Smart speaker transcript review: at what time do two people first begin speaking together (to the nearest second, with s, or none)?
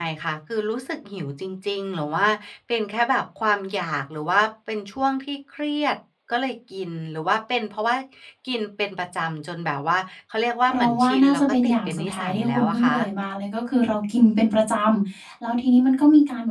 11 s